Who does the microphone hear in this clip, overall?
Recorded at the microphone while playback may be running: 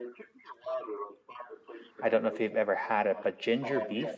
both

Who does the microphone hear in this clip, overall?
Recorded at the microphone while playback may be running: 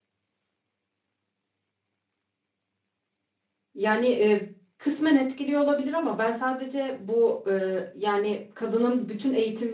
user only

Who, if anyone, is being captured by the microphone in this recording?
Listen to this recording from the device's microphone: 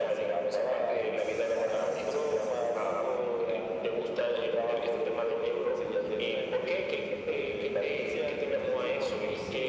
echo only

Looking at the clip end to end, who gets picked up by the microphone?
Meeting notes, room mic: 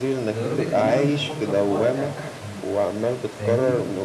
both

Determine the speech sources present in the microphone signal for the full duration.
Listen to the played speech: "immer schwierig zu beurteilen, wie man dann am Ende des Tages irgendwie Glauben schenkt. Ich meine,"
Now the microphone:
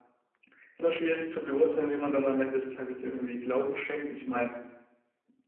echo only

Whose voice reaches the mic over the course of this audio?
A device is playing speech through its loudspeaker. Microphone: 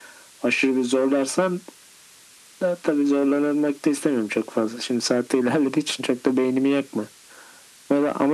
echo only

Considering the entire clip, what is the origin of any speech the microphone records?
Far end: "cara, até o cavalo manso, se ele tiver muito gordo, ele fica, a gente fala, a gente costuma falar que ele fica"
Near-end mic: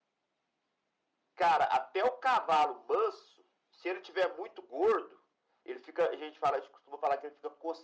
echo only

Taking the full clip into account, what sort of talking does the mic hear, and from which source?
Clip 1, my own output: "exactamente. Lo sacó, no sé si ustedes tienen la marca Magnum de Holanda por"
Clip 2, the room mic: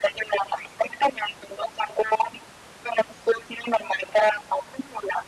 echo only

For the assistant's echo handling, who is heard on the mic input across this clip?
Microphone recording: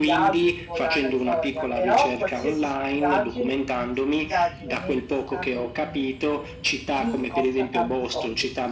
both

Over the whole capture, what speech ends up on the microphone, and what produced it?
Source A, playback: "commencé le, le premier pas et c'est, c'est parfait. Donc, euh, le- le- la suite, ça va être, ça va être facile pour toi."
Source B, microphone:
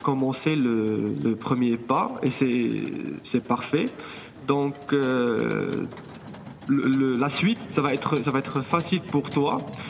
echo only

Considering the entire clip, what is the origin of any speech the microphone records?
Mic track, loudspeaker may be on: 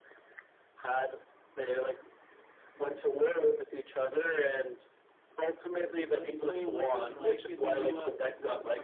both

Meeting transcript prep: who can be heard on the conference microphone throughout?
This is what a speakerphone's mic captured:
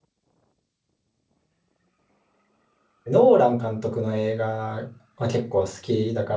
user only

